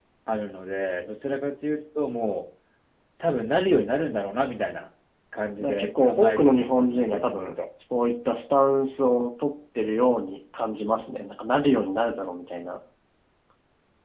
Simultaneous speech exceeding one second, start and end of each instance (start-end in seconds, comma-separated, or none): 5.6-7.5